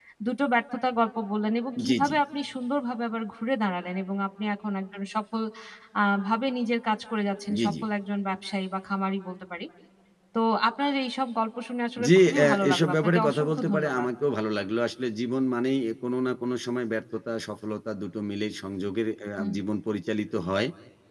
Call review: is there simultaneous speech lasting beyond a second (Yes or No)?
Yes